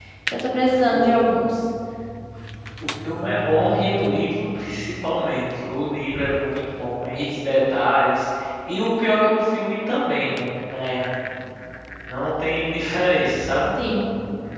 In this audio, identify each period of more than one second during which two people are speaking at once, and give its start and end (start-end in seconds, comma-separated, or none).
none